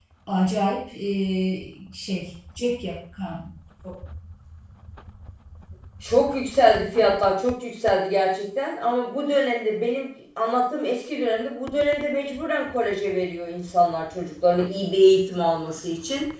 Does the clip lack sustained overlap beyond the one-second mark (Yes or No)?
Yes